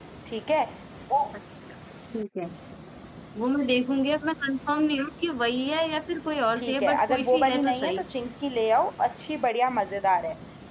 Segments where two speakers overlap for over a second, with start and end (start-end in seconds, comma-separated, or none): 6.6-8.0